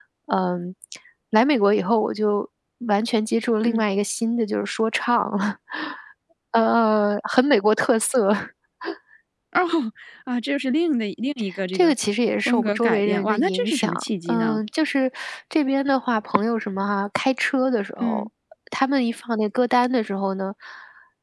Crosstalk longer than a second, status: present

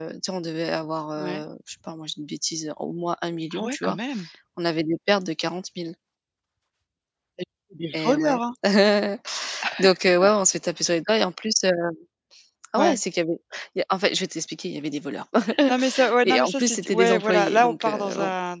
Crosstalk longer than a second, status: present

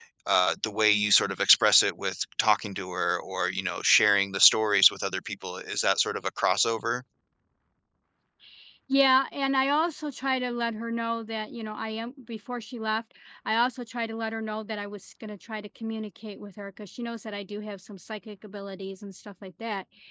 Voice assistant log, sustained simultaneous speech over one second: none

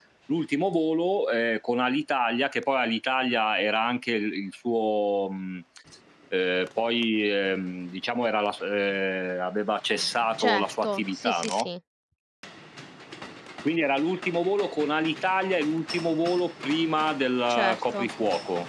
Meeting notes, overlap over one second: present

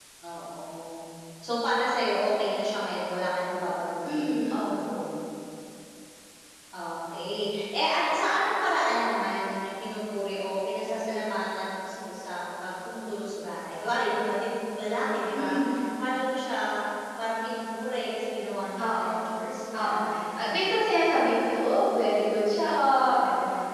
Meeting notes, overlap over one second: none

